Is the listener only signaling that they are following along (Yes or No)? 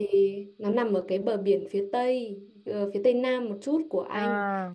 Yes